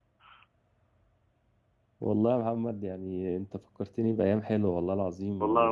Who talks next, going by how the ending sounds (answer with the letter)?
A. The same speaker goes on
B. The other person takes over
B